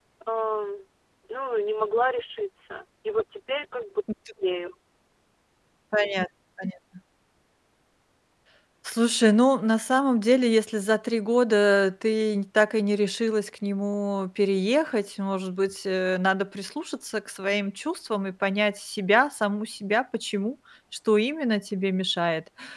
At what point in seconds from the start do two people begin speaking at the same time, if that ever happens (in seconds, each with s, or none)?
none